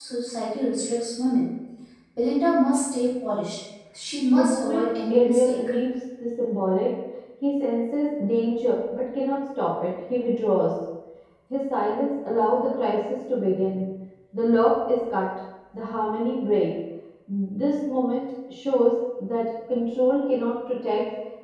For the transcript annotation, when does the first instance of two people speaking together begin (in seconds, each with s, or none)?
4.3 s